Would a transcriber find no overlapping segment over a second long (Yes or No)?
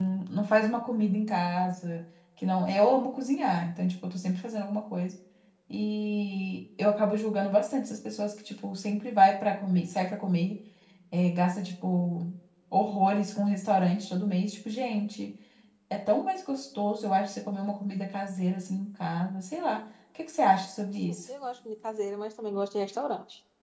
Yes